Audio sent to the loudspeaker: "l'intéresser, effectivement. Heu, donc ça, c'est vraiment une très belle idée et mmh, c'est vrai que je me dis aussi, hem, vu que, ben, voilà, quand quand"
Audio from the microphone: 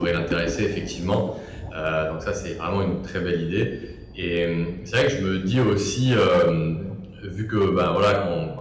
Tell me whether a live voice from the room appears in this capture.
No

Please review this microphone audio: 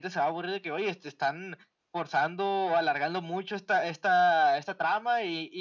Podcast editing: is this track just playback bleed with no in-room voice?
Yes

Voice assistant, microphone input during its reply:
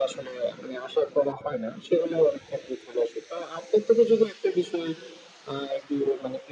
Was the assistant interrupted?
No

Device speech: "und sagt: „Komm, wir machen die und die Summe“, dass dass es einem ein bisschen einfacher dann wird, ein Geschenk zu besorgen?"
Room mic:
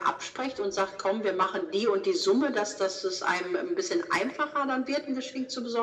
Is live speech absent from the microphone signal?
Yes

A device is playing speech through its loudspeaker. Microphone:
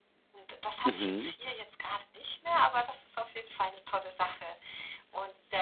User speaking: Yes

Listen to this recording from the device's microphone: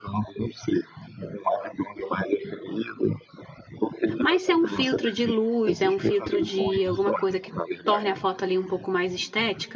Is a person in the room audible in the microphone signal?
Yes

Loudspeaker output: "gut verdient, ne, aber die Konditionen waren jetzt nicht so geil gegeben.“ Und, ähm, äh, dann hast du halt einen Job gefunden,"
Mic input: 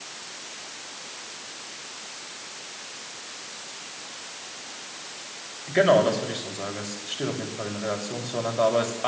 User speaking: Yes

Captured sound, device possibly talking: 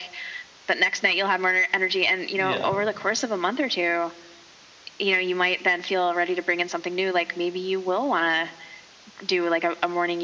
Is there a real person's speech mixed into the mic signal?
Yes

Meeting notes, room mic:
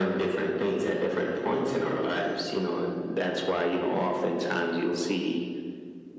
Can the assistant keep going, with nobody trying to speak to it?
Yes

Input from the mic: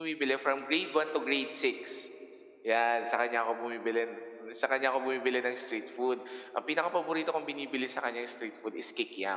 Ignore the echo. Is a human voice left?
Yes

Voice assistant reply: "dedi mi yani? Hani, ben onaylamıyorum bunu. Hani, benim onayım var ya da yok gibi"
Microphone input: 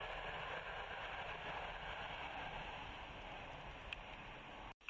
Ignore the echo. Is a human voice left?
No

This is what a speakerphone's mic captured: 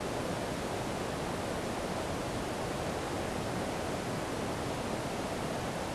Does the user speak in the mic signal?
No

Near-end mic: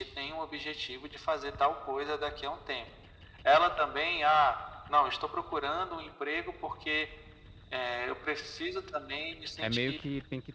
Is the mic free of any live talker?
No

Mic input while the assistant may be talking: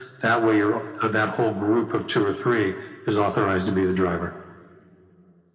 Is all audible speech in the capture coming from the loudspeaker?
Yes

